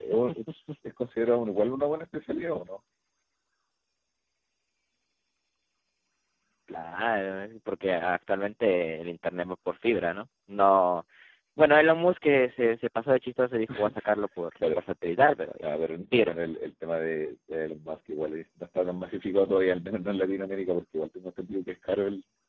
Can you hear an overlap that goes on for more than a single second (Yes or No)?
No